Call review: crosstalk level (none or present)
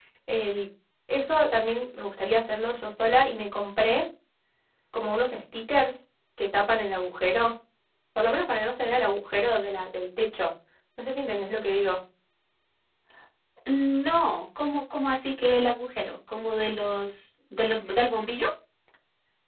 none